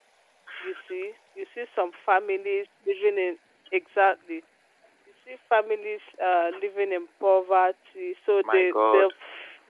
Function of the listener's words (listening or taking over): listening